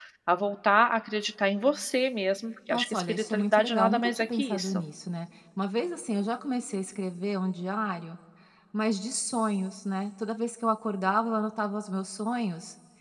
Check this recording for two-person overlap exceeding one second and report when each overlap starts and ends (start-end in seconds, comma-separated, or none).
2.7-4.8